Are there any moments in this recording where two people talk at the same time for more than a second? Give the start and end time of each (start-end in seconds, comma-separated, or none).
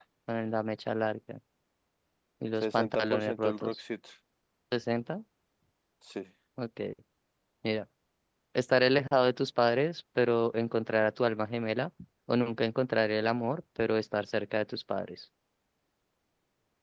2.6-3.8